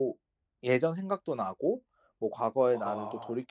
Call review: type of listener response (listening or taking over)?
listening